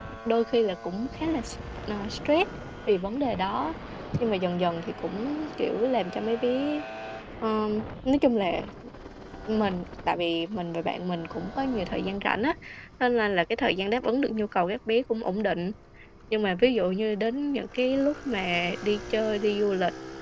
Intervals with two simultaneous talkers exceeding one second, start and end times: none

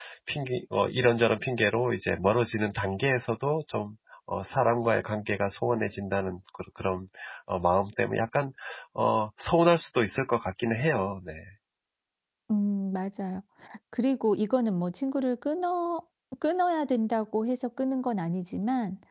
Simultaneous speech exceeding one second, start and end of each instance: none

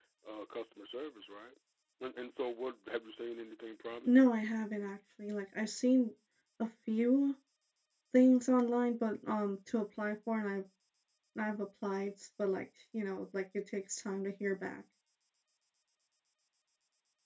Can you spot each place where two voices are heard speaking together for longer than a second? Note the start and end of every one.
none

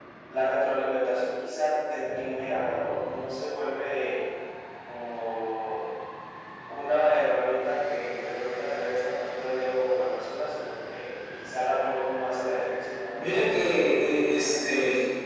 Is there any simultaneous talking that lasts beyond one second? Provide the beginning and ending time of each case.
13.2-14.7

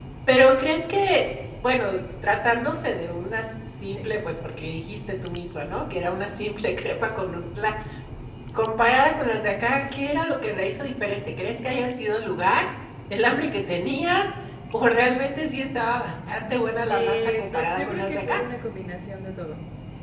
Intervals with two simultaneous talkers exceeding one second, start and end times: 16.9-18.4

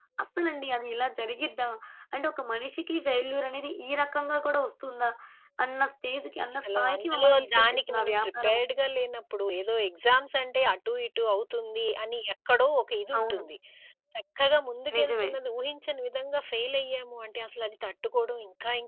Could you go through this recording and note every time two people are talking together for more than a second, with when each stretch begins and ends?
6.5-8.6

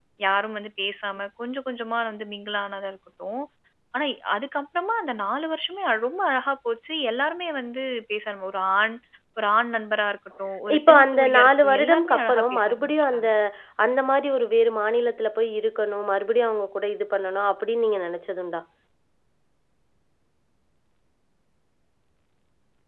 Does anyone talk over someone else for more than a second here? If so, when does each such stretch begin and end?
10.8-13.3

